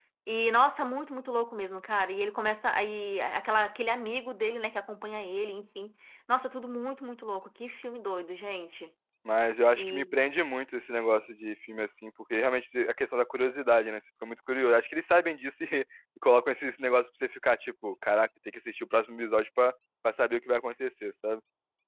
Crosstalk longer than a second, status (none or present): none